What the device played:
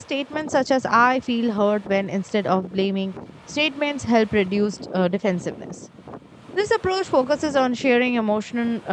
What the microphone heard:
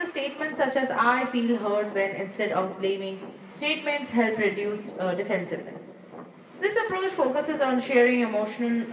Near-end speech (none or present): none